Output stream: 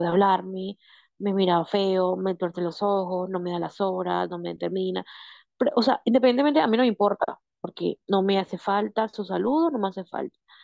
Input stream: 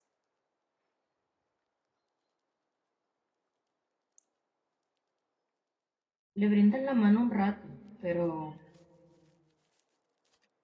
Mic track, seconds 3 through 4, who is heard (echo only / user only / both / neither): neither